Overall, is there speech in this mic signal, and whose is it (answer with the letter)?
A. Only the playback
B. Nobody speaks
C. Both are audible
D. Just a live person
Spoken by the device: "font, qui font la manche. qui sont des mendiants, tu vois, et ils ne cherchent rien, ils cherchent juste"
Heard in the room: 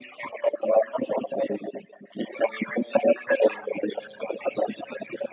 A